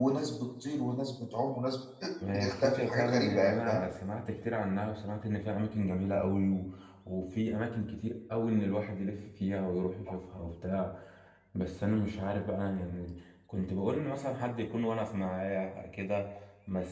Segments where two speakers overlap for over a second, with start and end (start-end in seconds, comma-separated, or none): 2.3-3.8